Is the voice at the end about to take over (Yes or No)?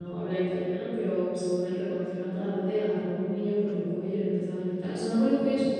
No